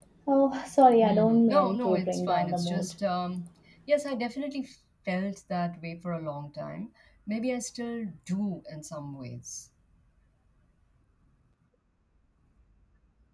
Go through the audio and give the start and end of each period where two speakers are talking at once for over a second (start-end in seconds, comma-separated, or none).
1.0-2.9